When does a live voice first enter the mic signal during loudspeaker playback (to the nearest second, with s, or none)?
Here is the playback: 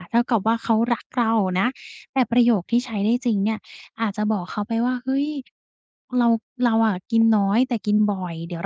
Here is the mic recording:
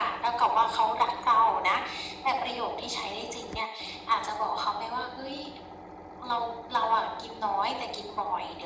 none